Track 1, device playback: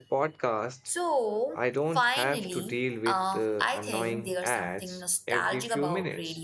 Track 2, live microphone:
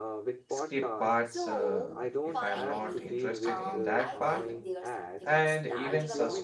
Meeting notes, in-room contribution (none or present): present